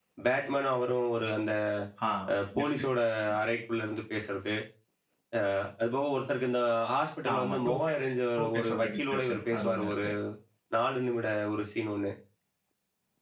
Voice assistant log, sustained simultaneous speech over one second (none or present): present